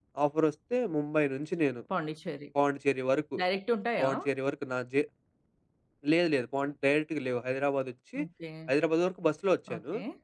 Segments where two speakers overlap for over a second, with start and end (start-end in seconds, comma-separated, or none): none